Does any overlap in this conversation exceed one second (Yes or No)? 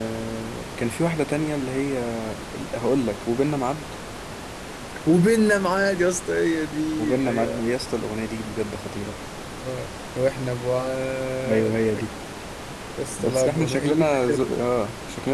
Yes